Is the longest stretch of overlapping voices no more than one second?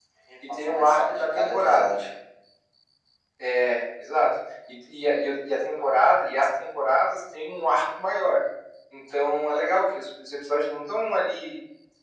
No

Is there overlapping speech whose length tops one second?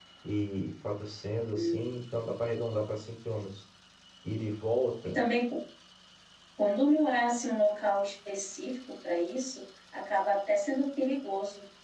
No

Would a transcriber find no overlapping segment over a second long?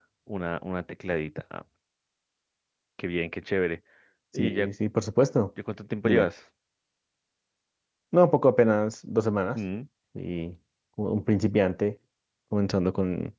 Yes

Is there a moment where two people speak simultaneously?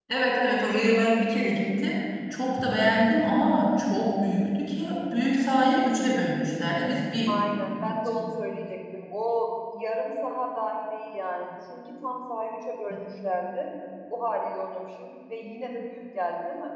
No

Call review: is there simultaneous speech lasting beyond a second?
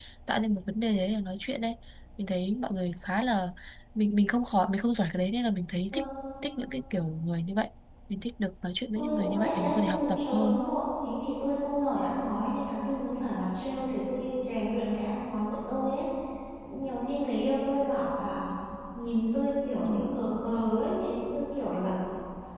Yes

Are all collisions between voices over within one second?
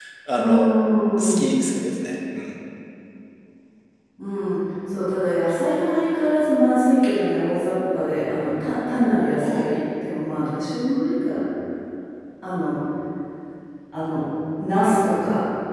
Yes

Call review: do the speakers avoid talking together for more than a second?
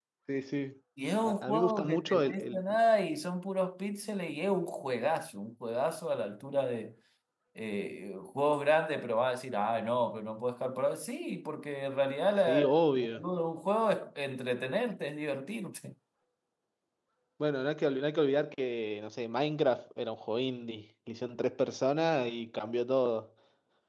No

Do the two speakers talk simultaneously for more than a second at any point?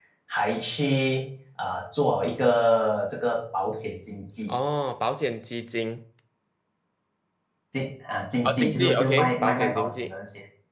Yes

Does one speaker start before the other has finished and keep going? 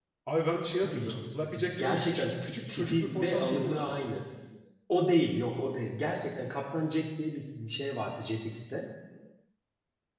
Yes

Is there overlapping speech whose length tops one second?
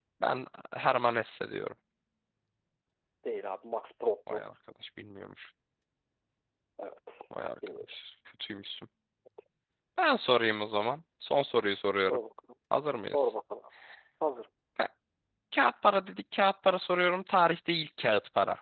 No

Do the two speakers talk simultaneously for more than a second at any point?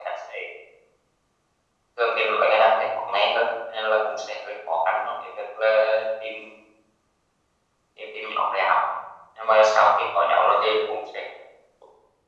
No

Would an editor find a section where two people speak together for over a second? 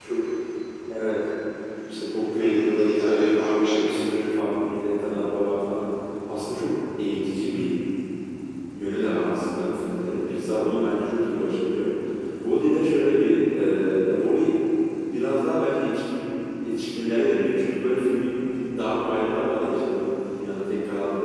Yes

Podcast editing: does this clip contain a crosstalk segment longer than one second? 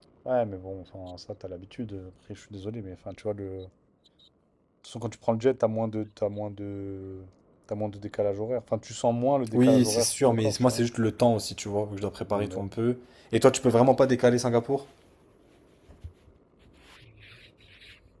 Yes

